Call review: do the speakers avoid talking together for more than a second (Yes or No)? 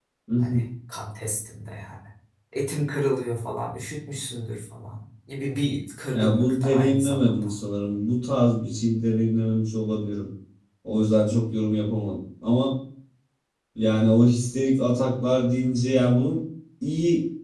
No